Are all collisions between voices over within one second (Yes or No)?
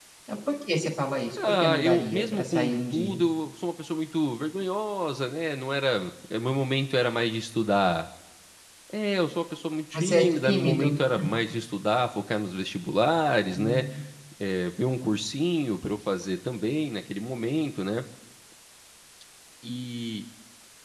No